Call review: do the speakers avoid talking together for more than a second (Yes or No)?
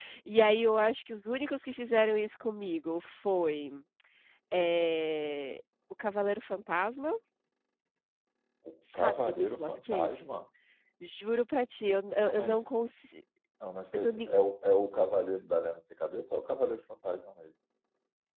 No